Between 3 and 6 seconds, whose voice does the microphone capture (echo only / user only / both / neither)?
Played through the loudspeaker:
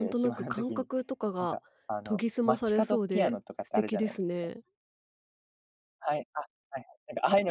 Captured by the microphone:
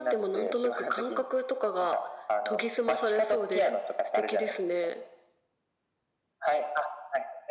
echo only